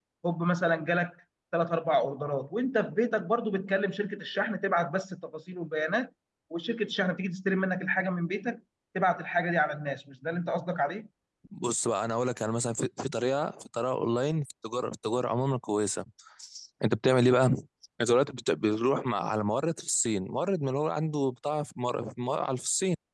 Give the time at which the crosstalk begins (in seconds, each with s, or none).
none